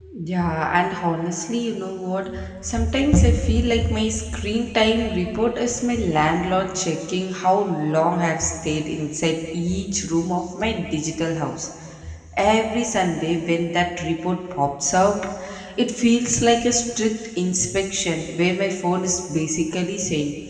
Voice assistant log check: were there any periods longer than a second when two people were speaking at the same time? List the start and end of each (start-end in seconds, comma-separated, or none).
none